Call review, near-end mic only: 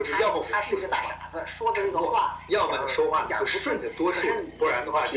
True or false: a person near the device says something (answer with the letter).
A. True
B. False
B